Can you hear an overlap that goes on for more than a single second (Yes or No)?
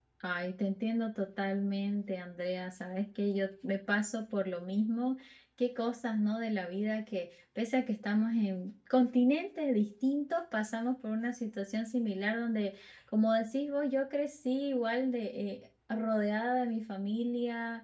No